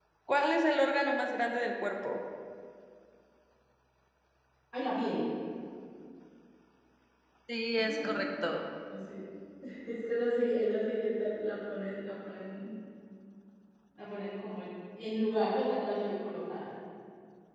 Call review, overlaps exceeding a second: none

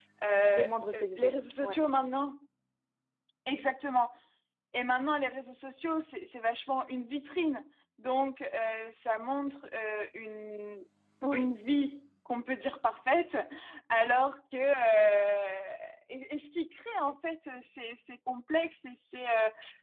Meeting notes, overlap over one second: present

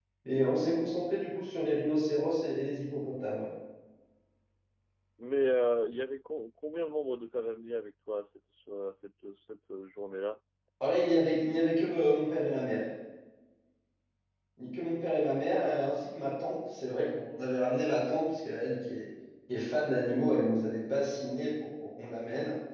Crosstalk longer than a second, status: none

